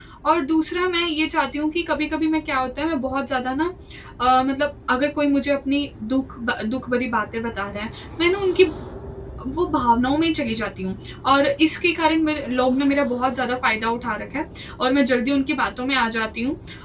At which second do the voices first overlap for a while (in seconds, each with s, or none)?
none